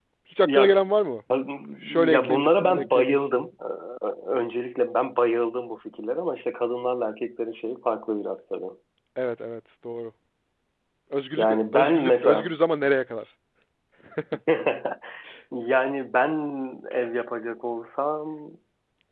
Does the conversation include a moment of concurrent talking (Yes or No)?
Yes